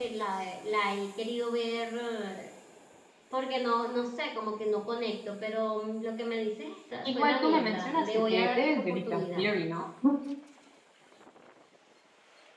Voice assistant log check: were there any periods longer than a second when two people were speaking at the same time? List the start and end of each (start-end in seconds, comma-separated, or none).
7.0-9.4